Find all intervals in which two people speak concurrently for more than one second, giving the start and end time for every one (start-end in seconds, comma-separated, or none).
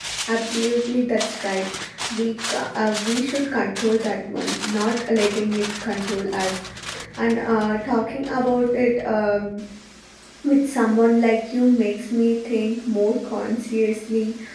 none